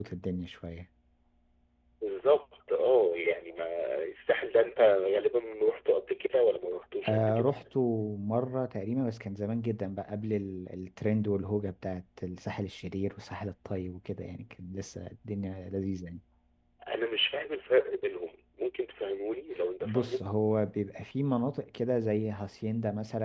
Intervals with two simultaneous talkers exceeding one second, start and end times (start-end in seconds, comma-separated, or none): none